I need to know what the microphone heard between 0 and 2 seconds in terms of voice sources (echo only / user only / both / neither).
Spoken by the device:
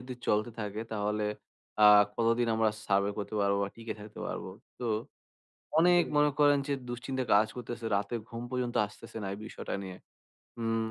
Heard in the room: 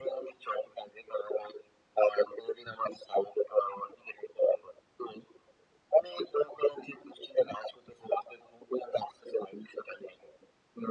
echo only